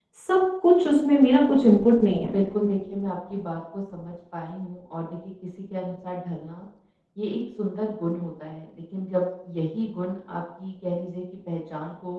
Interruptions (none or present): none